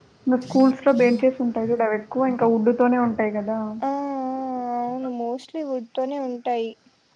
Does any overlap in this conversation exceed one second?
No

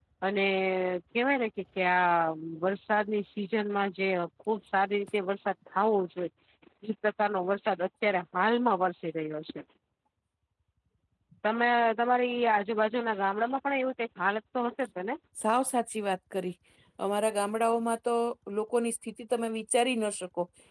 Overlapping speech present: No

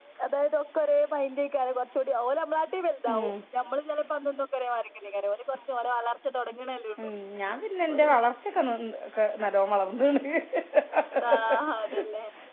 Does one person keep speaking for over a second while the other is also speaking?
No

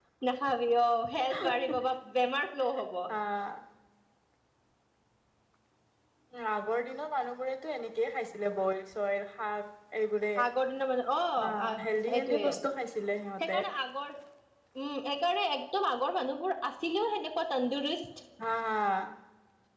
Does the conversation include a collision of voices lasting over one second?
No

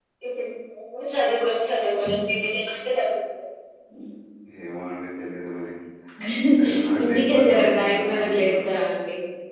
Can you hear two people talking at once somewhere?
Yes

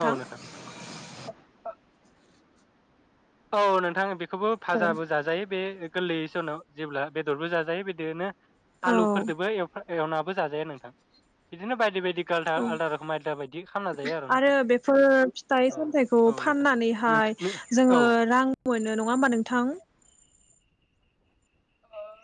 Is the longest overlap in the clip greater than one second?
No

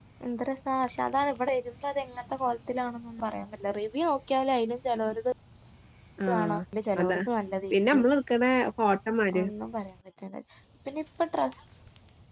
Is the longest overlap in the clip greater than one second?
No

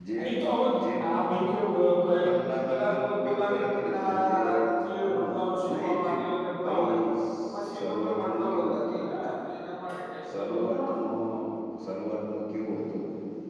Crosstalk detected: Yes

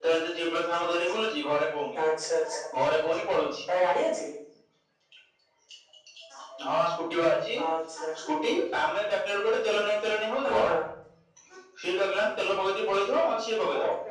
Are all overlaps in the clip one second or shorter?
Yes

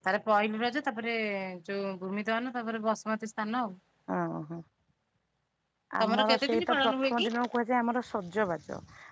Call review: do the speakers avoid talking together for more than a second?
No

